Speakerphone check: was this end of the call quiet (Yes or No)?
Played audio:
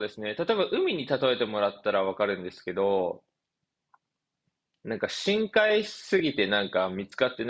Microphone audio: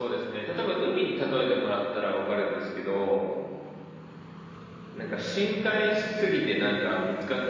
Yes